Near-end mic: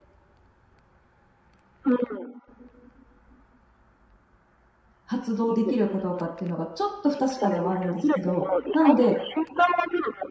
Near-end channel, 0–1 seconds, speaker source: neither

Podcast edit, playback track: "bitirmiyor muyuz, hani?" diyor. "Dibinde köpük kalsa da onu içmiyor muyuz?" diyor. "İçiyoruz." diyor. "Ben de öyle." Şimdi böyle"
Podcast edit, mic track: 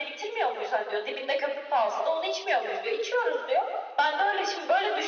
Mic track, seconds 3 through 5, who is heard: echo only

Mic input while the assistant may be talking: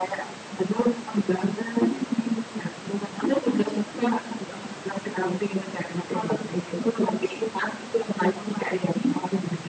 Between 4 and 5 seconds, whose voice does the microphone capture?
echo only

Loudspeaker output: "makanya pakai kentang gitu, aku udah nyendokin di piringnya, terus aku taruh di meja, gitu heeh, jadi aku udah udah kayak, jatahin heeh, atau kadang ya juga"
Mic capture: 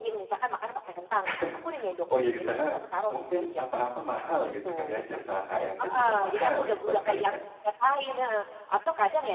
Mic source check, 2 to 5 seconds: both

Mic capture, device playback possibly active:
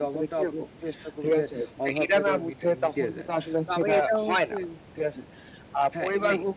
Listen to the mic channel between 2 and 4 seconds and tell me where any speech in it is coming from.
both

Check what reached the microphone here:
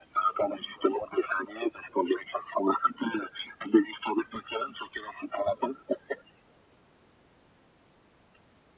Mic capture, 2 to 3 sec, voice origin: echo only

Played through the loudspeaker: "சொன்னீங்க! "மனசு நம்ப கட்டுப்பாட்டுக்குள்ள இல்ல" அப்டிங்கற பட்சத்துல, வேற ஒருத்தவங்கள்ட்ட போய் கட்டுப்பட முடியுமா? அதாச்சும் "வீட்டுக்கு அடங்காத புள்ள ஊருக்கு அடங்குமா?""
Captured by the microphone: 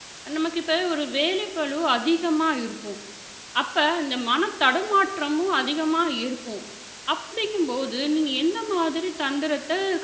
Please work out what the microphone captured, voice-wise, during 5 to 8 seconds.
user only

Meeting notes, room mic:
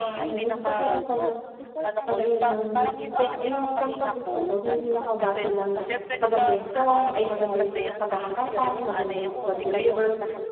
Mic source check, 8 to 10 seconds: both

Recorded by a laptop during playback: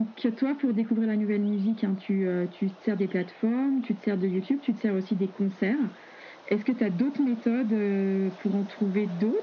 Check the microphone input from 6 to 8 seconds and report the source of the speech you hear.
echo only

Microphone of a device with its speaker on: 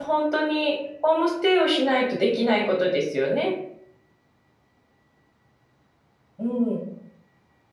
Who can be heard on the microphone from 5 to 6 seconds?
neither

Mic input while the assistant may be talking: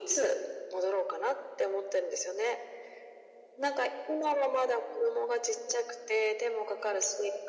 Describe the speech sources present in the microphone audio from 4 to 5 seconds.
echo only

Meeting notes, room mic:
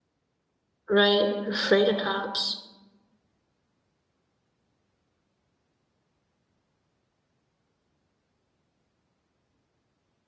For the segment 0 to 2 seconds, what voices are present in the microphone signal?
user only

